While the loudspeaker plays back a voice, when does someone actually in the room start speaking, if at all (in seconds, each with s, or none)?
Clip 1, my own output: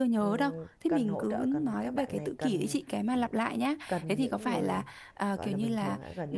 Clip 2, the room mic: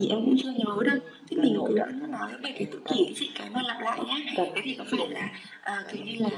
none